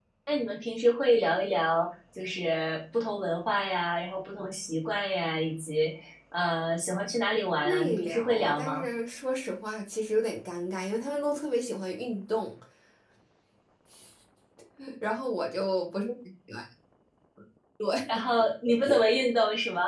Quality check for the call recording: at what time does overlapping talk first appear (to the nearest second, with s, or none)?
8 s